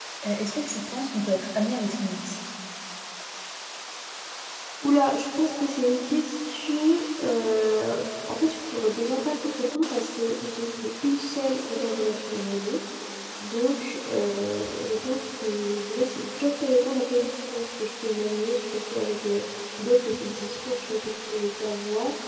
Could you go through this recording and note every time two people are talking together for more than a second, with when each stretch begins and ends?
none

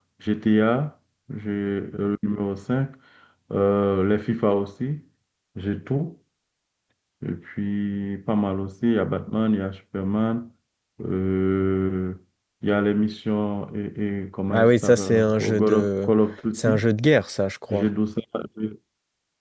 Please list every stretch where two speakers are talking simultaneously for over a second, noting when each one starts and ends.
14.5-16.1

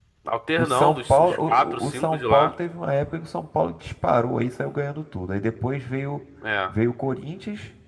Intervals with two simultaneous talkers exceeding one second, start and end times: 0.6-2.5

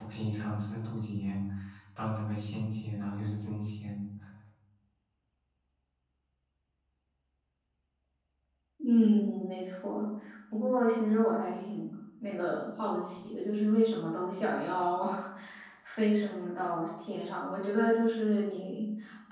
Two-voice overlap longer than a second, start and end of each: none

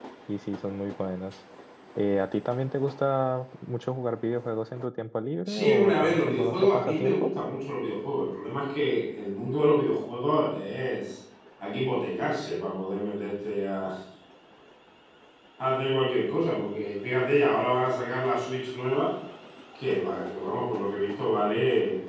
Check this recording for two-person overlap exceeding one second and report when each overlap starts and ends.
5.5-7.3

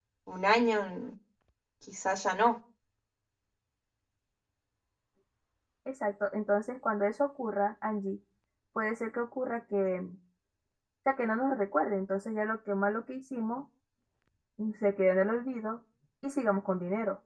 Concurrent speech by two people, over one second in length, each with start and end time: none

